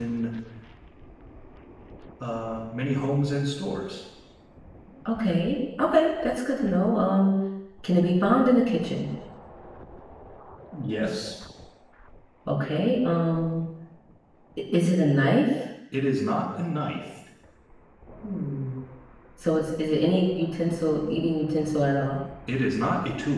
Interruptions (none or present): none